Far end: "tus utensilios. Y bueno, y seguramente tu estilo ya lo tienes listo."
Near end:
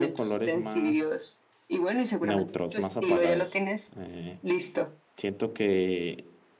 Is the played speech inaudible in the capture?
No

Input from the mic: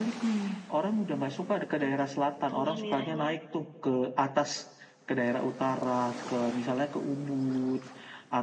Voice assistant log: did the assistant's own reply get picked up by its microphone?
Yes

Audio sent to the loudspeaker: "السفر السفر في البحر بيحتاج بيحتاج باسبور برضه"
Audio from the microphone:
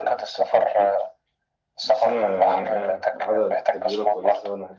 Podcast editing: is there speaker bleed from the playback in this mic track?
Yes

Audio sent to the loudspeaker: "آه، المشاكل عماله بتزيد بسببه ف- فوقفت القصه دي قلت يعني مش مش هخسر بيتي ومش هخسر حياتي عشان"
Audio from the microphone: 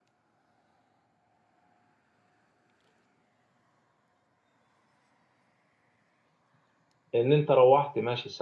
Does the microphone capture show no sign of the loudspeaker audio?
Yes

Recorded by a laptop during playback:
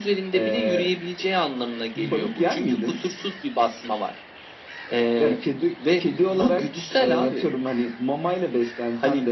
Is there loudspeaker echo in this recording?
Yes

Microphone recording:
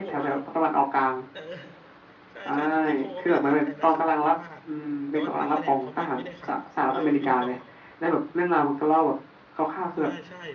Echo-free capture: No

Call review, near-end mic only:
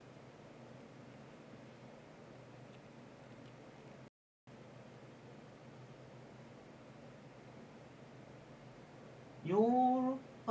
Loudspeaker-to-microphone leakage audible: No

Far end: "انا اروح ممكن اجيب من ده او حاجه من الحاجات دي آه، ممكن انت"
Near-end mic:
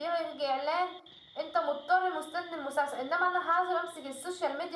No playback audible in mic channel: Yes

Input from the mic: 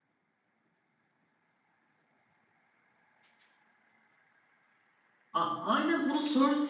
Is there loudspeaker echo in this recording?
No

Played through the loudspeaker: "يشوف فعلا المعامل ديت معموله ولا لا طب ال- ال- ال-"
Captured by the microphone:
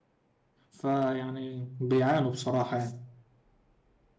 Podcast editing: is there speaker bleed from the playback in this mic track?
No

